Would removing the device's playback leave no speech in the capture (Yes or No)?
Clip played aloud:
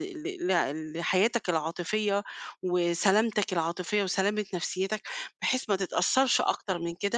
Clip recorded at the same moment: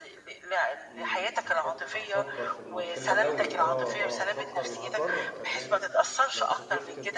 No